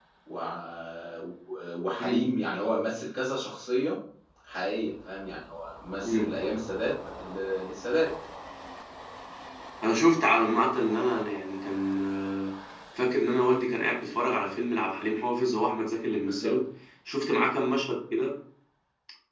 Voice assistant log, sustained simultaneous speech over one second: none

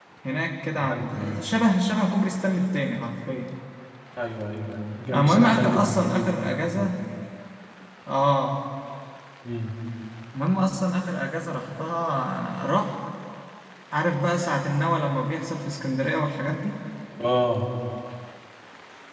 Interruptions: present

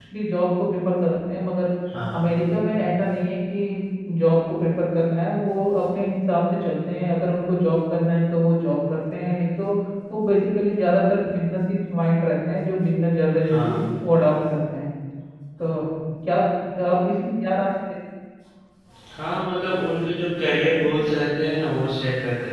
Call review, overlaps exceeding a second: none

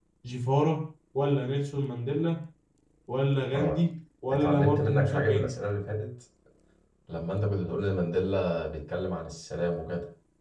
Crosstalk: present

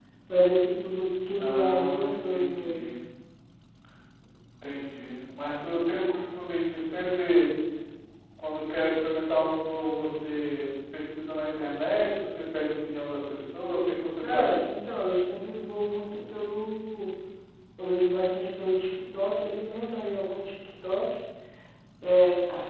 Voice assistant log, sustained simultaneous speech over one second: present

